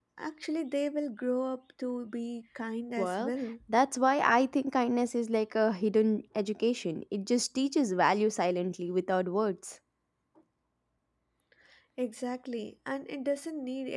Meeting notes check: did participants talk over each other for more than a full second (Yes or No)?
No